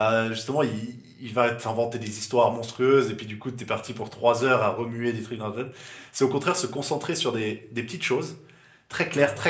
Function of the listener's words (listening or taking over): listening